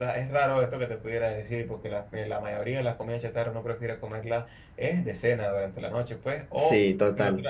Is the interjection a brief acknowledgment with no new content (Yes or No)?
Yes